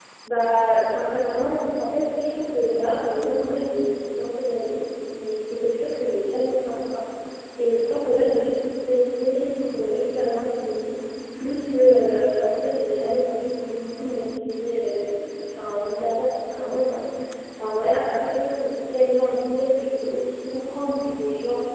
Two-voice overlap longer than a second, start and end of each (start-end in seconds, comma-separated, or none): none